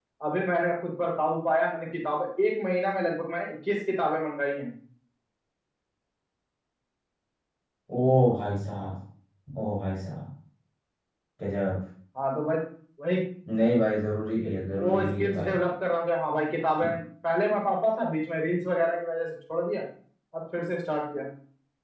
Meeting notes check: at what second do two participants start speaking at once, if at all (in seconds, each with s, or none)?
14.3 s